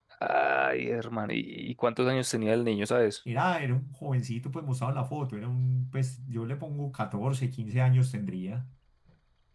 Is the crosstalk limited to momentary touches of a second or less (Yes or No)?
Yes